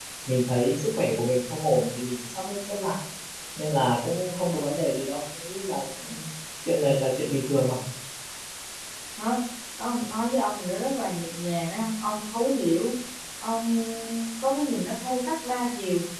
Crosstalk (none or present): none